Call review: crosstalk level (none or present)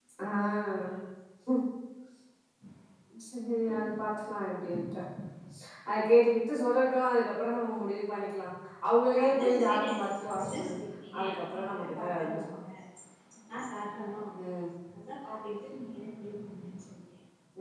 present